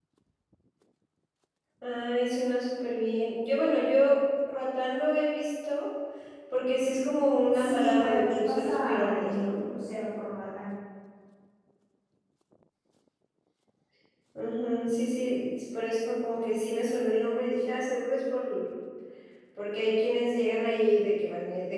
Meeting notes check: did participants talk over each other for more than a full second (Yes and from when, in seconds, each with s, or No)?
Yes, from 7.5 s